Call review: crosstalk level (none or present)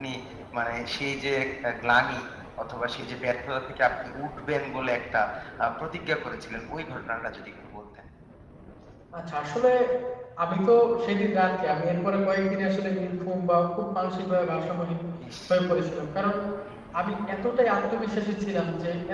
none